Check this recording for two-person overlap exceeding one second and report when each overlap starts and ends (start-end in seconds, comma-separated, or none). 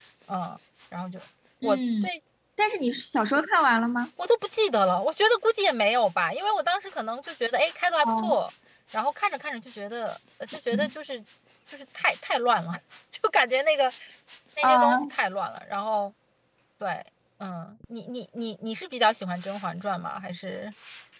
none